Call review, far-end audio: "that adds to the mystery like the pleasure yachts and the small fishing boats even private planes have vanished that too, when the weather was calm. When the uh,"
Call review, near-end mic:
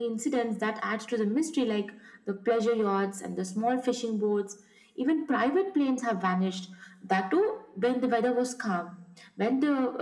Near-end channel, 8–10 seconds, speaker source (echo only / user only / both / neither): echo only